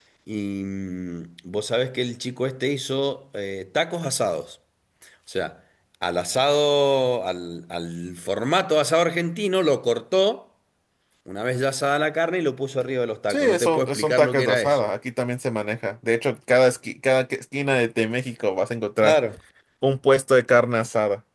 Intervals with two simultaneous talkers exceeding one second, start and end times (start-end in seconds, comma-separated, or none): 13.3-14.8